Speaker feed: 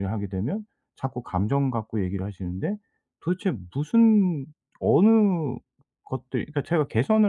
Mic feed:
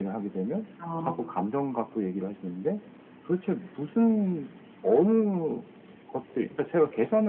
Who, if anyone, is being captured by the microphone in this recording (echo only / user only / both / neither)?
both